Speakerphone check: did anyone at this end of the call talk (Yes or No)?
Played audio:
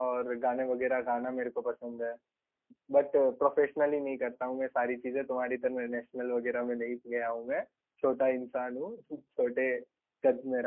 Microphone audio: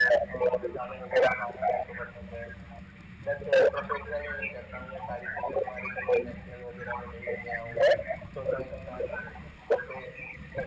No